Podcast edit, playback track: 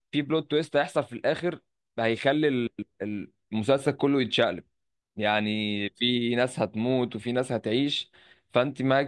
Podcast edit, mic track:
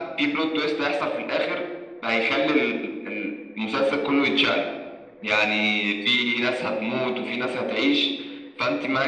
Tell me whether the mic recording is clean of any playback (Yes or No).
No